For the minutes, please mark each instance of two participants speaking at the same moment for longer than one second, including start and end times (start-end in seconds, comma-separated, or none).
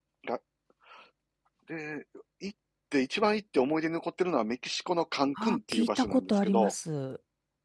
5.4-6.7